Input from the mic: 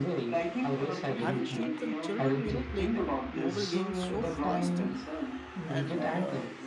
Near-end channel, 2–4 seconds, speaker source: both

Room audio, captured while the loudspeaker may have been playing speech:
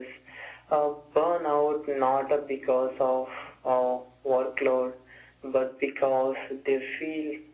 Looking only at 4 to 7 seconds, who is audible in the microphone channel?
echo only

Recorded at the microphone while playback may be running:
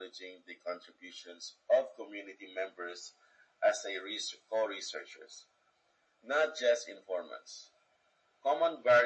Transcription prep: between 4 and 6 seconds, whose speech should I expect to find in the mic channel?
echo only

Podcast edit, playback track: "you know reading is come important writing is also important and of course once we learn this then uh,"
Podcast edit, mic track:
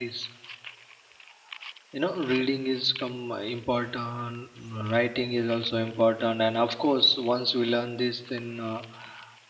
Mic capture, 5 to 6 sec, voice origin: echo only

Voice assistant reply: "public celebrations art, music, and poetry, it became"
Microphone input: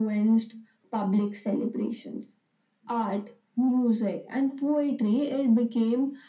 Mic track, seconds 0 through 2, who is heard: echo only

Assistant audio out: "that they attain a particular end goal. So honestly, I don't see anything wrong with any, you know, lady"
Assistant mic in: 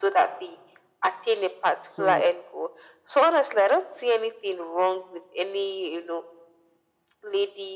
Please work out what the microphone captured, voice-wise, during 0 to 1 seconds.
echo only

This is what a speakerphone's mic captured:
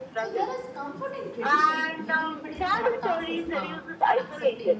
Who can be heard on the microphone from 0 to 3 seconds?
both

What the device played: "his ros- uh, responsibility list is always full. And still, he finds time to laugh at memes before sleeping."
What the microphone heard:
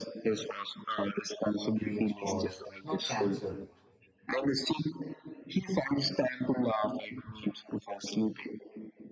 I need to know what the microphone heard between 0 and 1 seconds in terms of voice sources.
echo only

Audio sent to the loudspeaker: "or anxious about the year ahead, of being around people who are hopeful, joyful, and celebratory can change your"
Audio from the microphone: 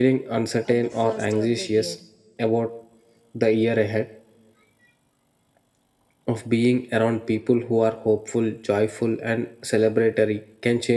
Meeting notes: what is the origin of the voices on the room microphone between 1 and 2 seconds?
both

